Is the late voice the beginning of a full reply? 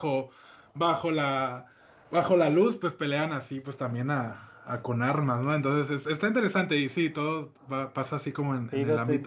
Yes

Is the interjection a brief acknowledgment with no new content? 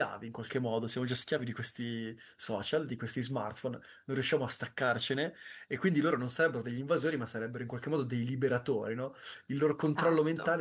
Yes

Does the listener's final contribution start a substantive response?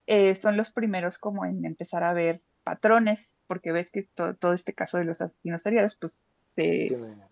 No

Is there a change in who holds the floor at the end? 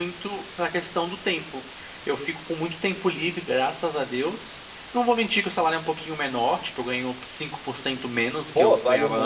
Yes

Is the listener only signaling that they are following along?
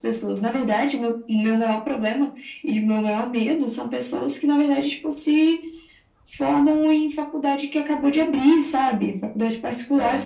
Yes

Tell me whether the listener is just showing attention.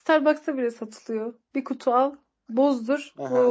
No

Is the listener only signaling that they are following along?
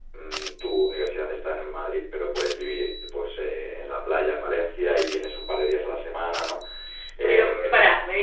No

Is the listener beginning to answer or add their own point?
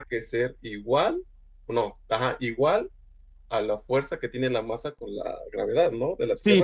Yes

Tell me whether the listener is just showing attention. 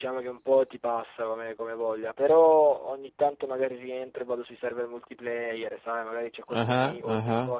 Yes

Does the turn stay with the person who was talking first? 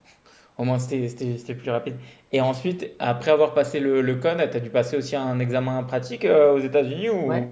No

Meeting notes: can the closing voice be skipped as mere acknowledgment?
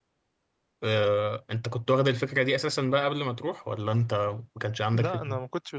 No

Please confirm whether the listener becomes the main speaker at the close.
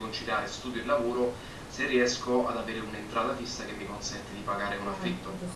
Yes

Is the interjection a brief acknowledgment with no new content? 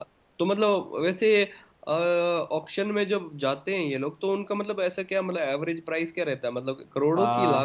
No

